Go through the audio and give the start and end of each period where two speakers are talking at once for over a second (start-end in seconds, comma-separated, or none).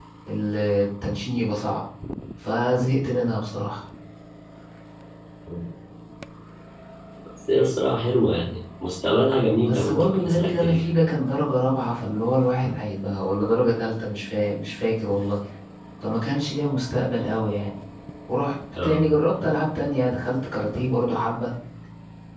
9.6-10.9